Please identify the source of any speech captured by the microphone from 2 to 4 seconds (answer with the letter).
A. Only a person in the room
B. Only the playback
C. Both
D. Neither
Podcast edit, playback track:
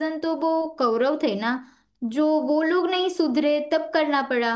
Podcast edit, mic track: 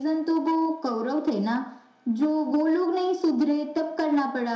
B